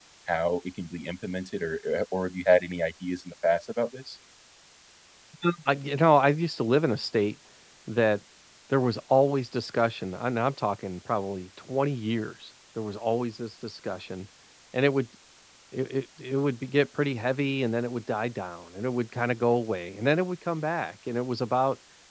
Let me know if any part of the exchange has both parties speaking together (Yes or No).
No